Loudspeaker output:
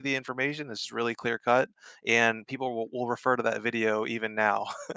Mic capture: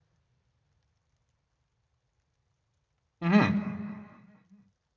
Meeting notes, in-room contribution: present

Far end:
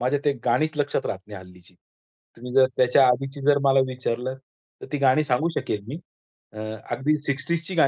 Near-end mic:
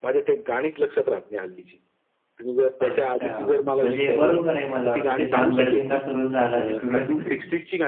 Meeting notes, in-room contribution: present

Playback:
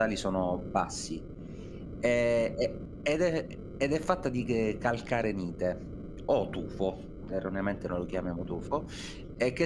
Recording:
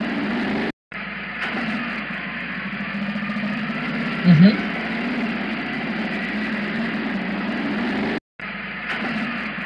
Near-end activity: present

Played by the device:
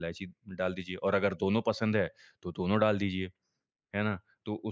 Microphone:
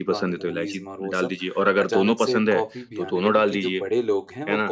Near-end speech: present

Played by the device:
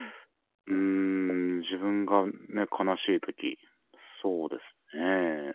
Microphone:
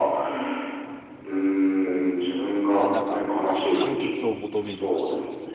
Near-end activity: present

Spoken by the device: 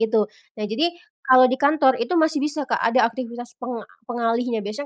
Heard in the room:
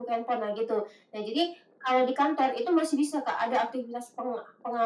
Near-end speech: none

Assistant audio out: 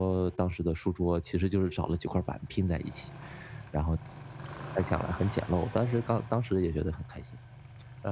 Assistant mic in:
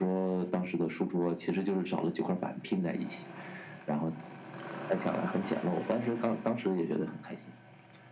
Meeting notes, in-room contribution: none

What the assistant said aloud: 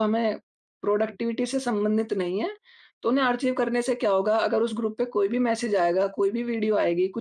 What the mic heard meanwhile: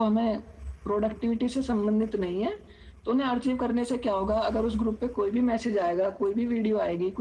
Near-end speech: none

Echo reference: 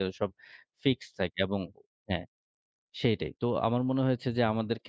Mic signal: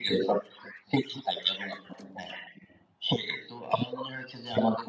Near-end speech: none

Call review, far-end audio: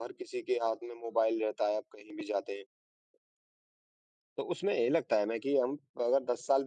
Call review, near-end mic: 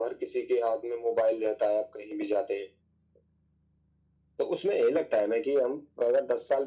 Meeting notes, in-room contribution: none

